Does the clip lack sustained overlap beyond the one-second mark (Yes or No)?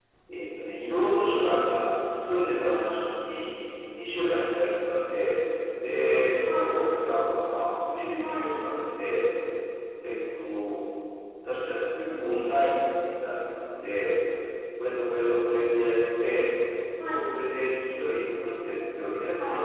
Yes